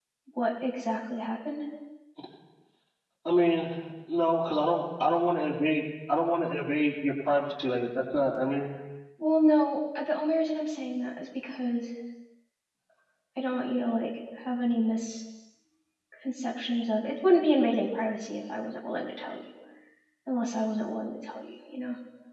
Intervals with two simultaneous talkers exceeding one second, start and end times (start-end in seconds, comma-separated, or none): none